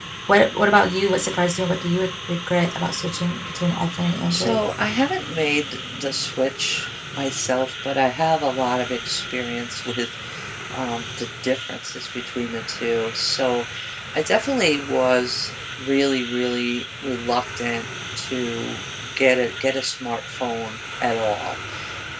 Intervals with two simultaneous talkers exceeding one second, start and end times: none

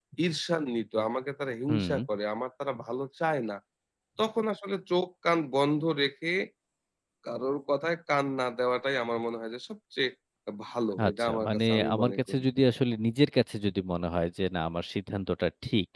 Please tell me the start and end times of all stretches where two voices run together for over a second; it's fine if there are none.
11.1-12.4

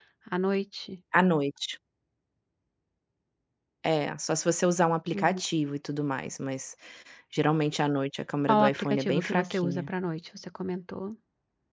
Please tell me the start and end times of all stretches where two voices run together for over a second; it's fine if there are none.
8.5-9.9

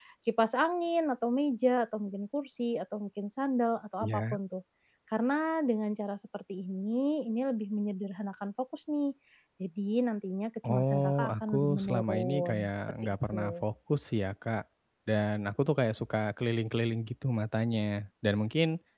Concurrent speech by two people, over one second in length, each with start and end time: 10.7-13.6

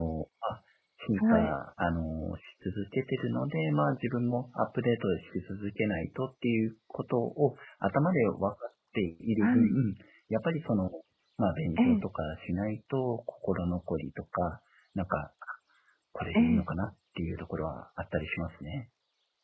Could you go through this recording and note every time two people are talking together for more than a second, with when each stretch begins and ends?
none

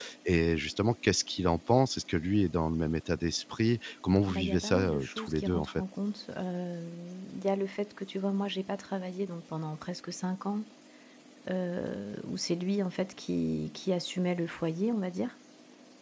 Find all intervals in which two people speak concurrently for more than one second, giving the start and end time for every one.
4.3-5.8

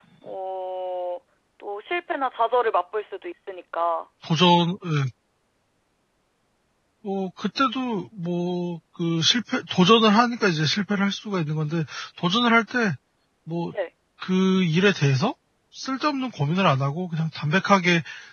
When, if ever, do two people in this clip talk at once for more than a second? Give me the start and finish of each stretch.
none

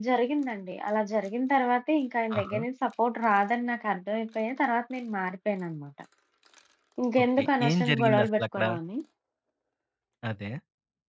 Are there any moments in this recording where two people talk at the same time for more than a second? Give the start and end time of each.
7.2-8.6

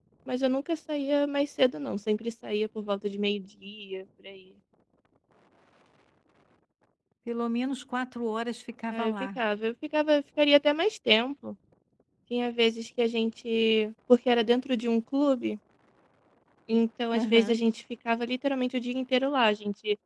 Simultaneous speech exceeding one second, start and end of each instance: none

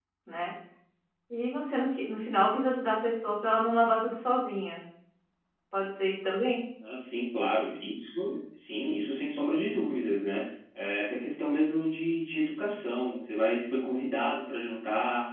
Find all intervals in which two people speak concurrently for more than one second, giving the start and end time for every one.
none

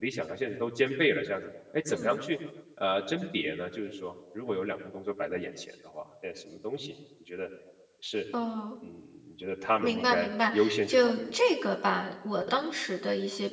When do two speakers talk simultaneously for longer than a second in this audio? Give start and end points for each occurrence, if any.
9.8-11.3

